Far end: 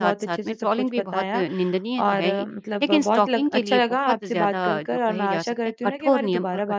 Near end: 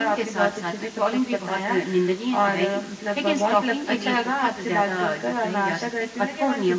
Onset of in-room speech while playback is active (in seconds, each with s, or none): none